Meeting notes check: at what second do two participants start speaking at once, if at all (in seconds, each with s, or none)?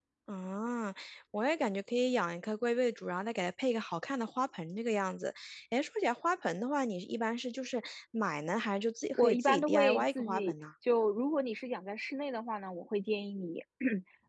9.2 s